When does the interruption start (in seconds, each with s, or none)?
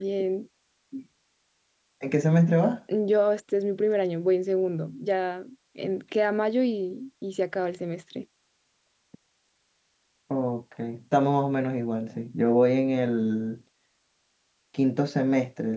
none